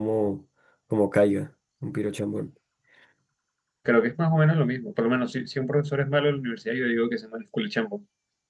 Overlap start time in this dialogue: none

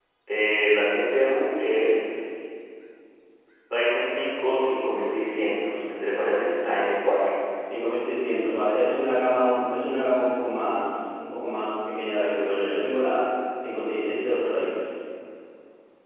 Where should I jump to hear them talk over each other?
none

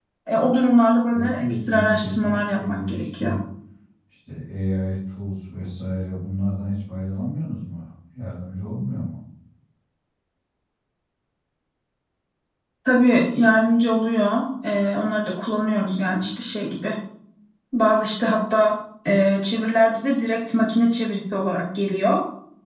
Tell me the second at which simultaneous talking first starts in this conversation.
1 s

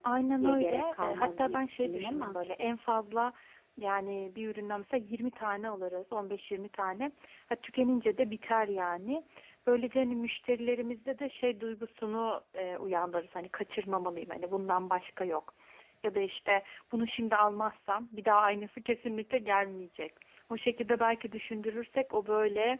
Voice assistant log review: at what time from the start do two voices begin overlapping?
1 s

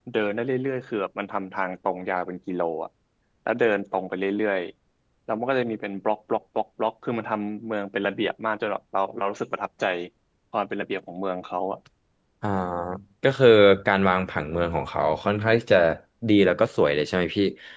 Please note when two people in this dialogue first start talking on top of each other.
none

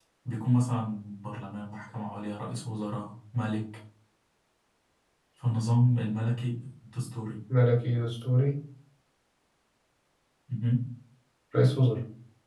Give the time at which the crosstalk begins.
none

